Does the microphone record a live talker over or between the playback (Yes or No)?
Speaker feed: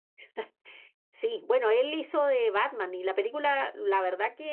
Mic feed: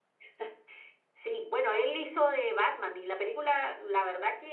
No